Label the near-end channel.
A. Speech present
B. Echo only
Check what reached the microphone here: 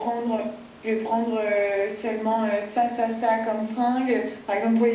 B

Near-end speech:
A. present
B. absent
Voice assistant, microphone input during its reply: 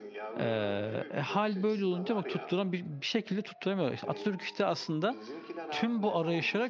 A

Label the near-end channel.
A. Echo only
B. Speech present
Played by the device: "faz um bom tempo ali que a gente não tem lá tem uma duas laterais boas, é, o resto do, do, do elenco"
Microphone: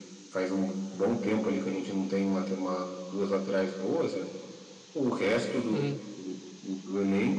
B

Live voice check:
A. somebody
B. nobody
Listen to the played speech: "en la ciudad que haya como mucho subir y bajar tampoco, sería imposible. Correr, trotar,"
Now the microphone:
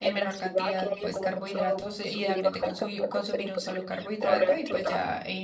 A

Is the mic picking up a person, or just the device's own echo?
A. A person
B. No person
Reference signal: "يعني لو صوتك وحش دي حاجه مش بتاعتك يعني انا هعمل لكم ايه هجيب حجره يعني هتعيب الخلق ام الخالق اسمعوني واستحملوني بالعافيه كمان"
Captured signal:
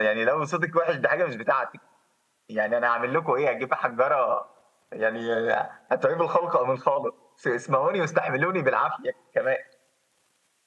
B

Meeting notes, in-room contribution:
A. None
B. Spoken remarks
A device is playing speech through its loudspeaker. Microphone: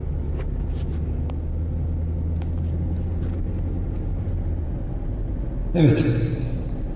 B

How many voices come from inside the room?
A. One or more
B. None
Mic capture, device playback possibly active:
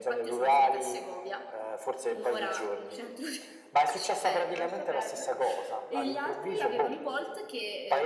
A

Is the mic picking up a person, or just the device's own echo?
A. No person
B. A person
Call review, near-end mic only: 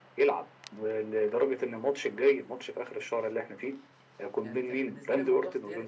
B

